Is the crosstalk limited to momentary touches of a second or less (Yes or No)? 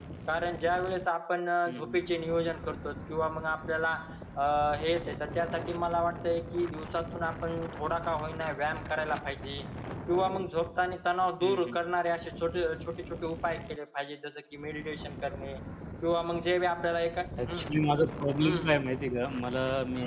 Yes